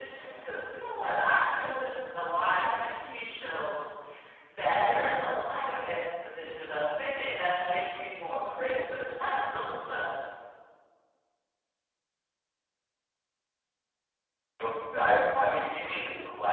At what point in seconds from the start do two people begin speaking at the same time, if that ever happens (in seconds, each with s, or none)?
none